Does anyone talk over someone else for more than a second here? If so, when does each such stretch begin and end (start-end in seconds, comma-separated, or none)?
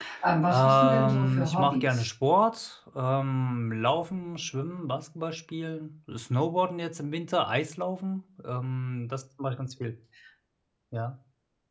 0.5-2.1